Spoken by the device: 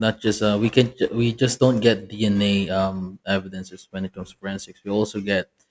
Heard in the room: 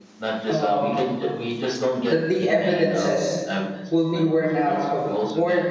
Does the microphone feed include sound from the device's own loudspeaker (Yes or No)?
Yes